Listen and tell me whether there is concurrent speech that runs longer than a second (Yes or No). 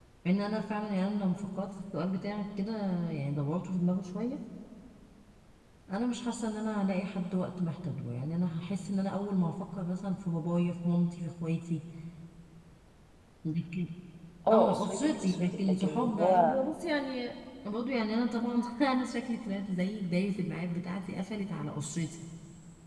Yes